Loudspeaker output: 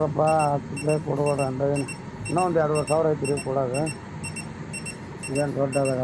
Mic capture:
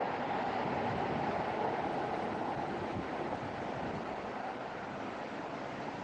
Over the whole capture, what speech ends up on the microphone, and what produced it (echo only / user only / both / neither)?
neither